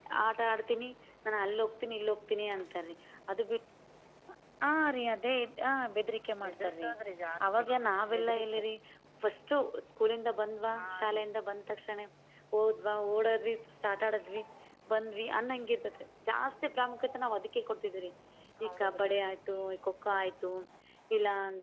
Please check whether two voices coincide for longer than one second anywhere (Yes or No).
No